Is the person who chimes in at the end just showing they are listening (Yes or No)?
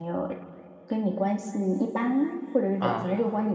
Yes